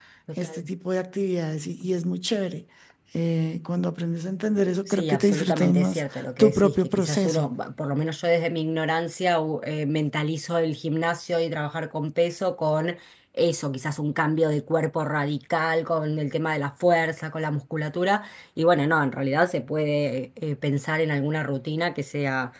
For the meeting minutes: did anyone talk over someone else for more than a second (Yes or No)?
Yes